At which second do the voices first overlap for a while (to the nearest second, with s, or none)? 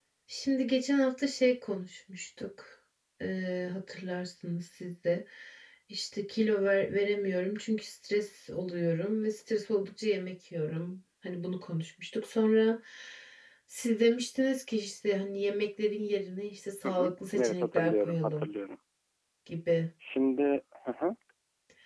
17 s